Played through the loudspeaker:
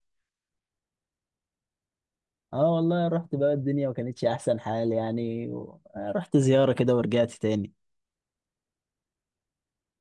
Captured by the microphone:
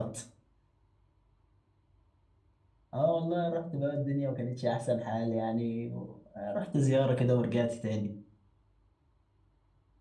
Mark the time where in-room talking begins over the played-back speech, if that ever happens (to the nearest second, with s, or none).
none